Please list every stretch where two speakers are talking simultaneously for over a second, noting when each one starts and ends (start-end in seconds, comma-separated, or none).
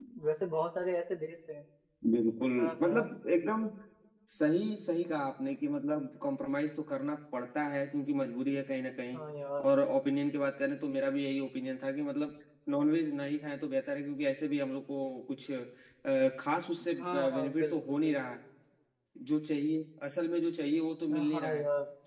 17.0-18.4